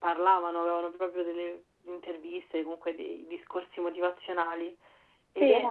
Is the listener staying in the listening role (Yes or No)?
Yes